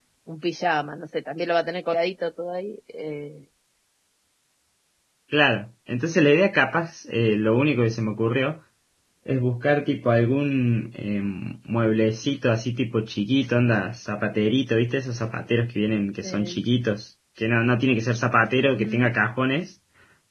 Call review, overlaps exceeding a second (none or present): none